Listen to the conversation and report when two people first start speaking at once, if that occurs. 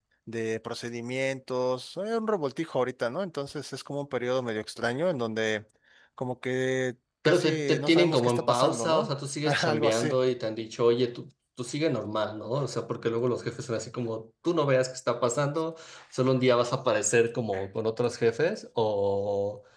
7.2 s

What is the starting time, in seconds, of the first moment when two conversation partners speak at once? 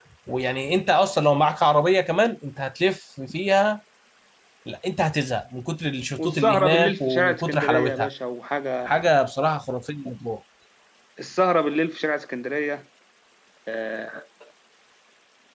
6.2 s

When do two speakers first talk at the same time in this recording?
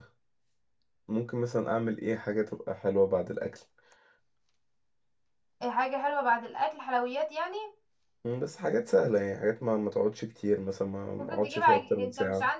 11.2 s

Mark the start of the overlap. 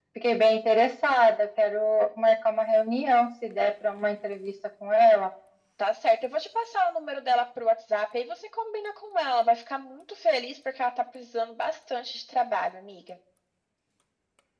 none

